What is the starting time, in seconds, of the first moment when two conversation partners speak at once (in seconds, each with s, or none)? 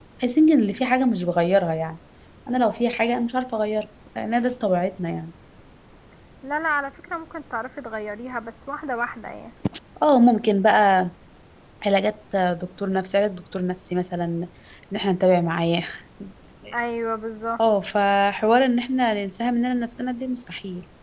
none